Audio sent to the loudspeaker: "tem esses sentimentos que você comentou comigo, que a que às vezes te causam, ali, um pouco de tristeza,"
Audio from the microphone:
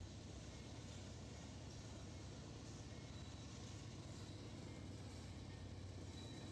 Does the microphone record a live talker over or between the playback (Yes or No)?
No